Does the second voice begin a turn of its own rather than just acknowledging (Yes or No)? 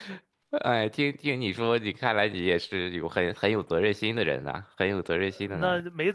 Yes